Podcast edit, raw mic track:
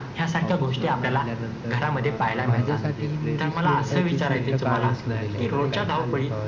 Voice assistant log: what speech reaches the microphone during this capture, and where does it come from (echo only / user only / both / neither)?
both